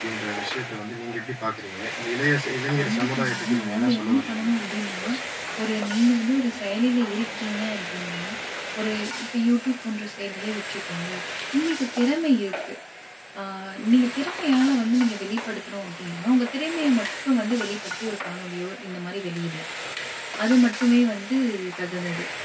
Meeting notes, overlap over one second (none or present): present